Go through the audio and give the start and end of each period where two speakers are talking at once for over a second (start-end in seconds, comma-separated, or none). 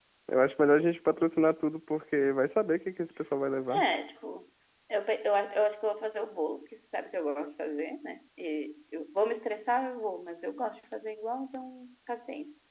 none